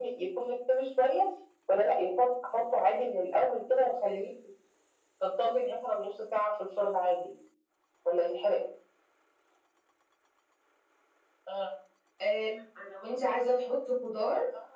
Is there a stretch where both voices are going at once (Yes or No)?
No